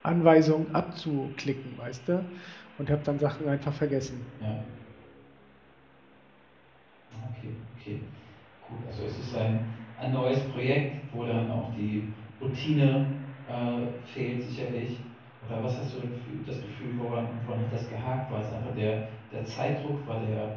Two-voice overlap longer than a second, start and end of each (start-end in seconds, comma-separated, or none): none